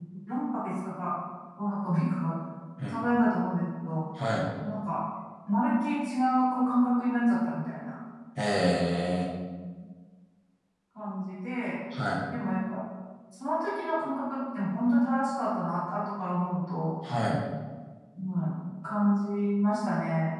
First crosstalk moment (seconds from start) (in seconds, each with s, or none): none